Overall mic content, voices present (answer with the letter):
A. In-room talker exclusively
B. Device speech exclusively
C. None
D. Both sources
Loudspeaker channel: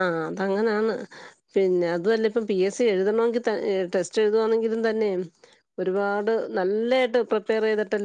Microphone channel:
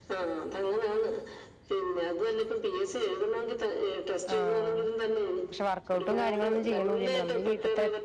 D